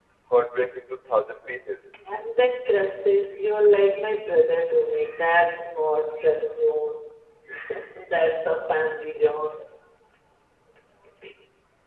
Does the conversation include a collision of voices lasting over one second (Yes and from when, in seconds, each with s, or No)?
No